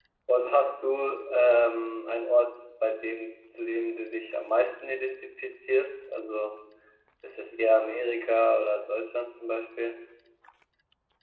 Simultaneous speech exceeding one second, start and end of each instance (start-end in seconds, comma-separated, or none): none